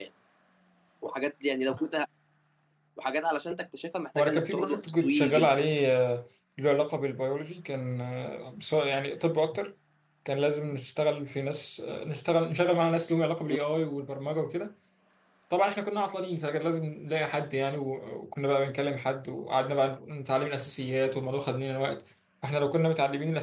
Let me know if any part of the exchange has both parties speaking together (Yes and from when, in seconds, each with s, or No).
Yes, from 4.2 s